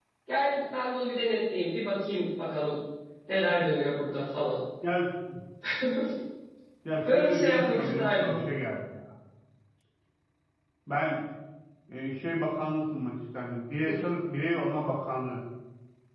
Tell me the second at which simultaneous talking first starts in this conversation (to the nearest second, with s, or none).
7 s